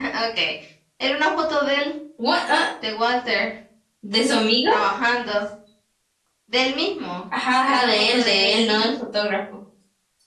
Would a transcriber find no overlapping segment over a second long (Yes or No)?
No